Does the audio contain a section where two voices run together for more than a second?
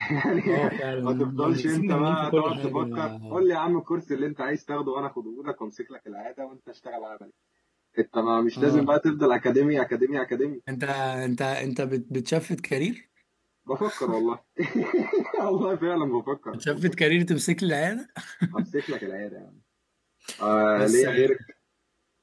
Yes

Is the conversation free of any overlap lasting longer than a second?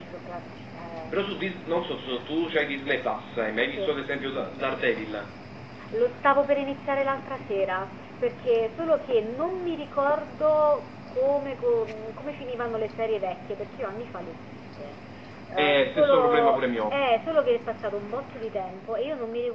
No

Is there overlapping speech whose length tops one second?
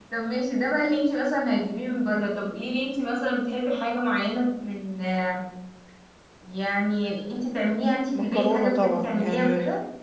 Yes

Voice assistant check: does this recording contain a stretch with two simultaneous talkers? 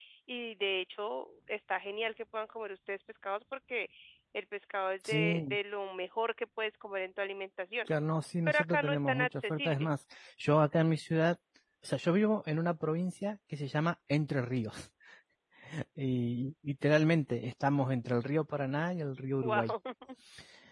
Yes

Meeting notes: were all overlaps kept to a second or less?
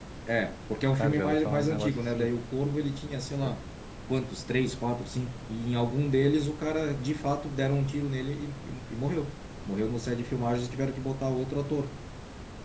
No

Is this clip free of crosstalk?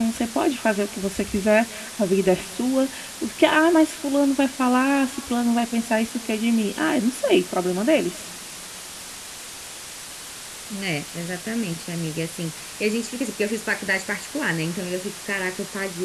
Yes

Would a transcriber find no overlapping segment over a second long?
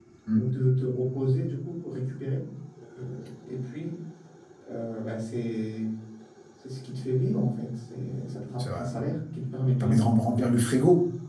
Yes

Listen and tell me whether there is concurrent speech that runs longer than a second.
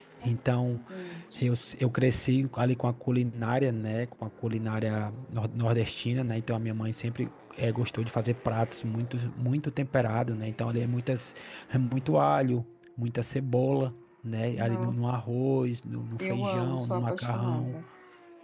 Yes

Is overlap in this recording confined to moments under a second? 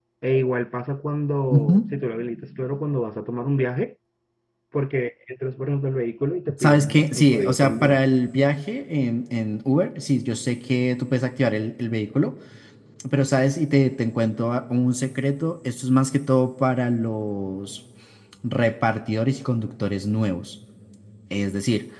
No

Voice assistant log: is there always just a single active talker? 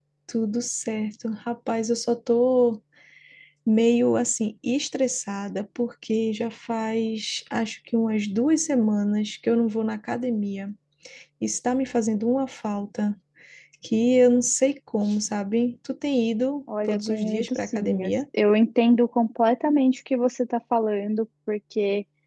No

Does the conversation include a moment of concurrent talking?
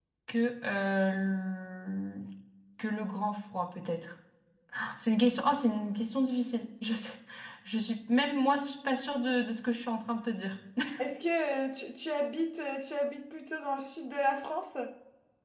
No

